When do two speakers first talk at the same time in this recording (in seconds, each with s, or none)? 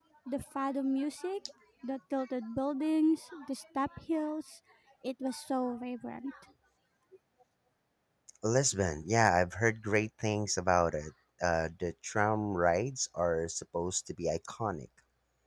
none